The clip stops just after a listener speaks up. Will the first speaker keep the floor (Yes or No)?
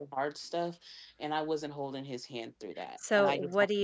No